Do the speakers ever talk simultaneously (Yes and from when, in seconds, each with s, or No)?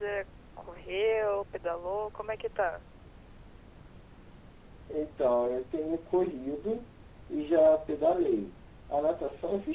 No